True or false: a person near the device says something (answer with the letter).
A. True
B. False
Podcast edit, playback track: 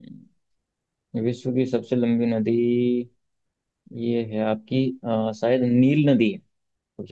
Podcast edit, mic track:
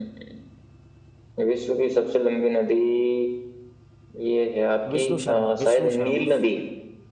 A